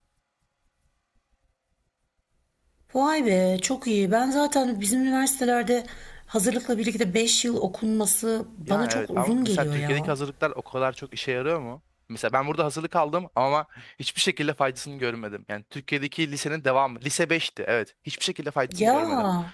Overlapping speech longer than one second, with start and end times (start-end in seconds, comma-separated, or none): 8.7-10.1